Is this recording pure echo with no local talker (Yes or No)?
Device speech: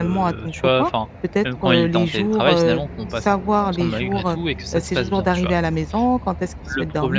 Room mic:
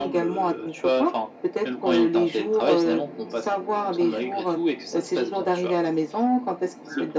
Yes